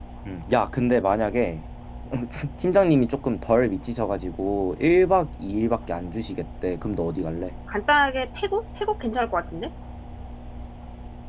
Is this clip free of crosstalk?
Yes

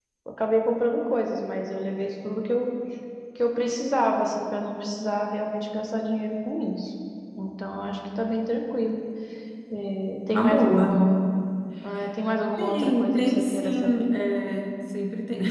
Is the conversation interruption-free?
No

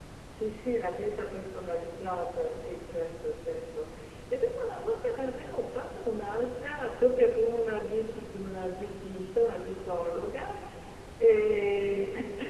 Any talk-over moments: No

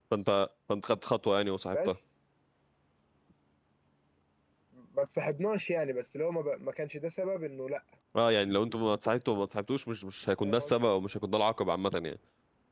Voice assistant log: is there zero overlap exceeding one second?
Yes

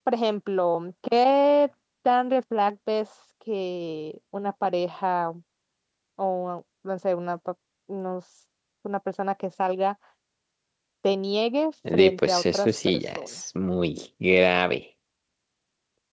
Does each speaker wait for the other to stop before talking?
No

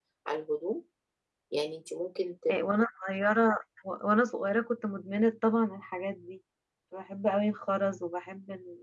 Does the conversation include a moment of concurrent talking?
No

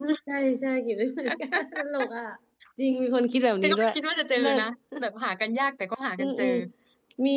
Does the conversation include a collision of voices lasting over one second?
No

